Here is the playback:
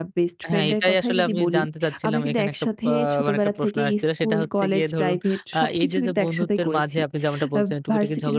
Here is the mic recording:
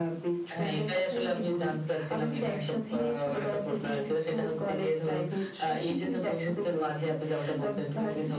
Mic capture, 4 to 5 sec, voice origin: echo only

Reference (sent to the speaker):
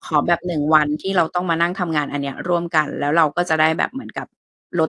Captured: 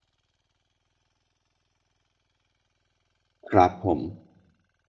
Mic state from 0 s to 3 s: neither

